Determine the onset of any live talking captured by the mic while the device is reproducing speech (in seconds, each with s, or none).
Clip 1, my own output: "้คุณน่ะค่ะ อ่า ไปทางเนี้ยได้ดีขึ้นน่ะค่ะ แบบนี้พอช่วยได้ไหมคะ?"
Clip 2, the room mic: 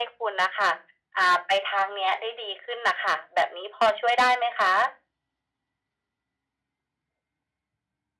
none